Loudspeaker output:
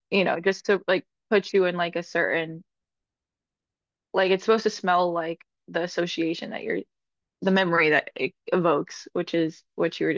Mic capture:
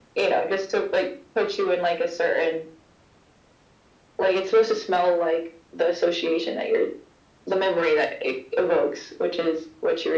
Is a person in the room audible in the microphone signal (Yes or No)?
No